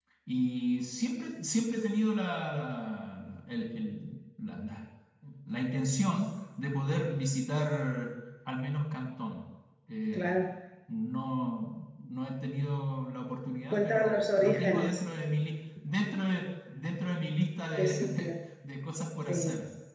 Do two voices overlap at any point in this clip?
Yes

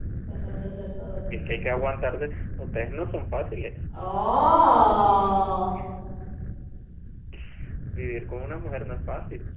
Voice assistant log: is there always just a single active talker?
Yes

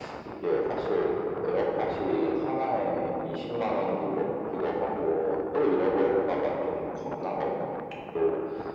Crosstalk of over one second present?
No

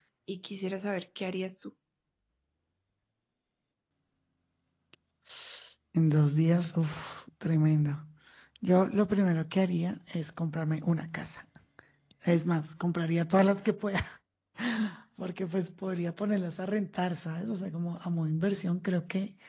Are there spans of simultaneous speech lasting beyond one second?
No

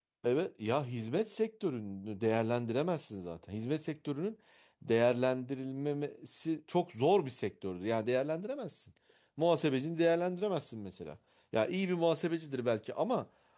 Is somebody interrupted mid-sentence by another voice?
No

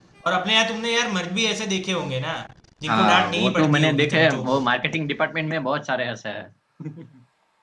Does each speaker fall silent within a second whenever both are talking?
No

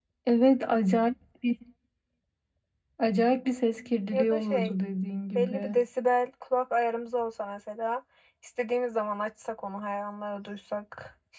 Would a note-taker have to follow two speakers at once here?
Yes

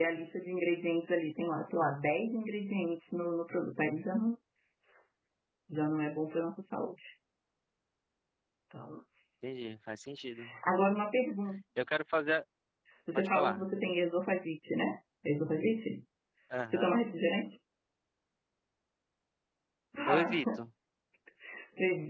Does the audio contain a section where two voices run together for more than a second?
No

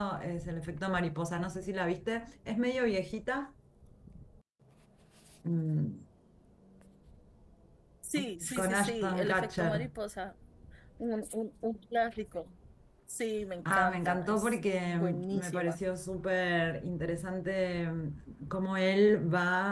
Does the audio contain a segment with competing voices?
Yes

